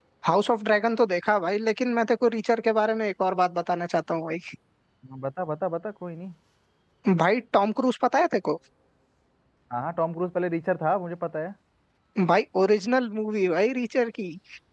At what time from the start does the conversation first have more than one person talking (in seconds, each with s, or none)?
none